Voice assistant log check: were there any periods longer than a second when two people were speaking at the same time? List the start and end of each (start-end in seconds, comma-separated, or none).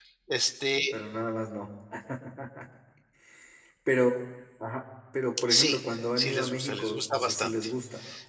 5.5-7.7